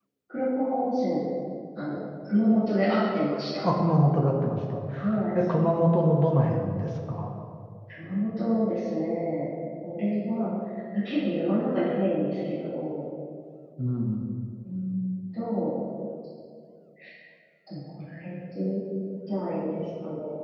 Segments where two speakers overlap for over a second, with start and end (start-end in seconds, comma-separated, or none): none